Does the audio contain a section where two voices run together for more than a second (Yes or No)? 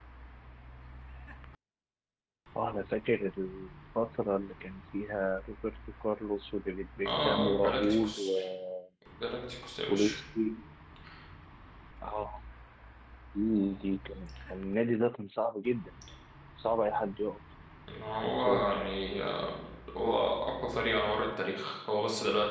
Yes